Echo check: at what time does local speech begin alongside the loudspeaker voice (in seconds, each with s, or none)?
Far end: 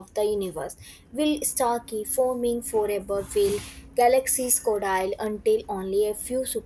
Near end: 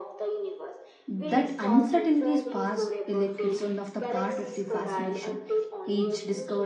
1.1 s